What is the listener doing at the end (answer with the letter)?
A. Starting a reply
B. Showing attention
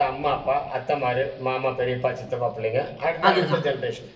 B